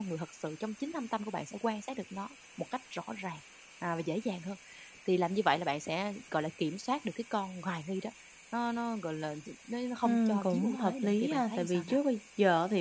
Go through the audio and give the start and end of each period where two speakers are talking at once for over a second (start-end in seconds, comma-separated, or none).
10.1-12.0